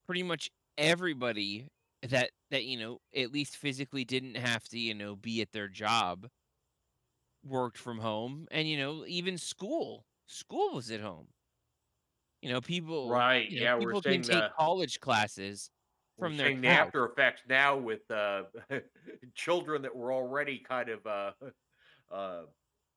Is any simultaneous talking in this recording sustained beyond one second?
Yes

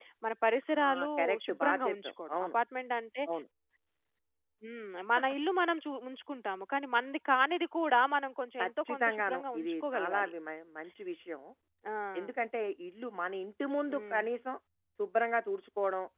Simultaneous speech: Yes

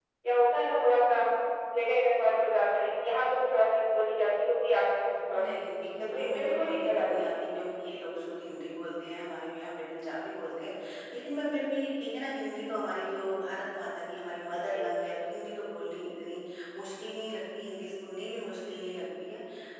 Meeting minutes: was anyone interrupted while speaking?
Yes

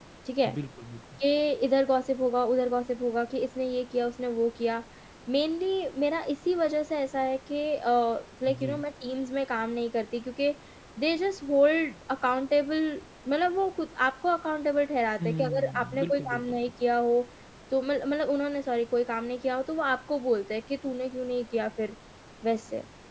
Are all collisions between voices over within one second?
No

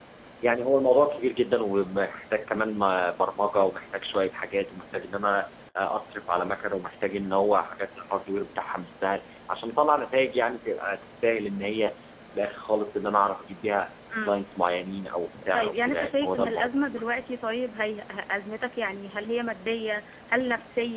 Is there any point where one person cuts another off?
Yes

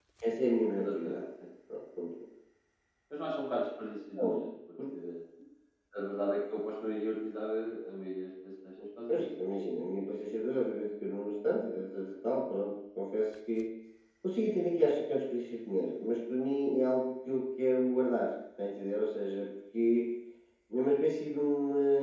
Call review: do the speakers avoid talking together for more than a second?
Yes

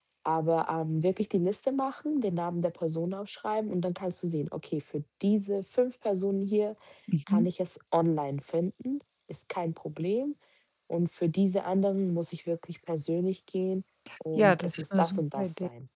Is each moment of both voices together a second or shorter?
No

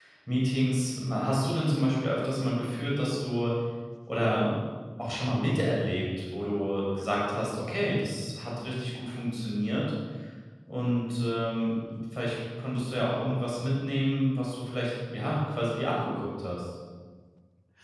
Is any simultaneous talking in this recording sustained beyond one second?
No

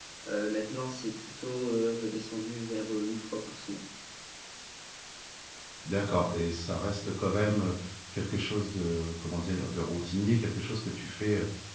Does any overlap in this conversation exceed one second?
No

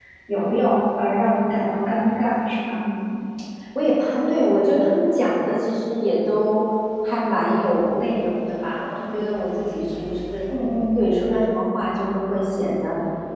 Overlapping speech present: No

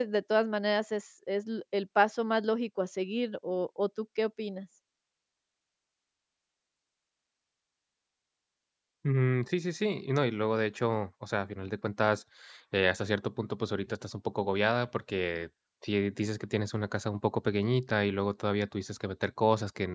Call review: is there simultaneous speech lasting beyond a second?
No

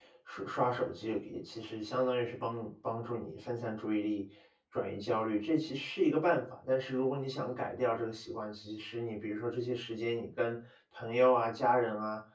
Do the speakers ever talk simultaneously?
No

